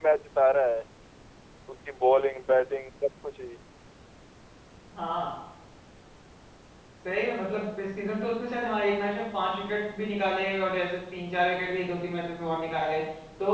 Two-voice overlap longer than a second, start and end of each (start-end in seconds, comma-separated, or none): none